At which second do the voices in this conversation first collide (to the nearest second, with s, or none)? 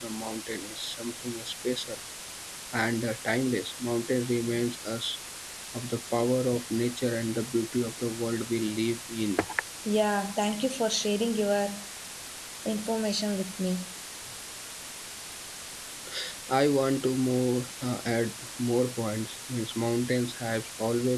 none